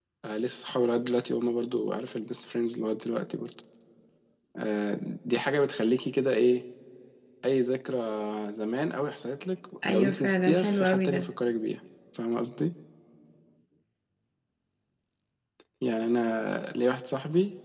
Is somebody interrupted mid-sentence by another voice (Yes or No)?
Yes